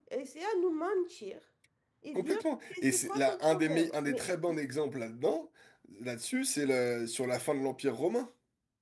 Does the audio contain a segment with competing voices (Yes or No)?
Yes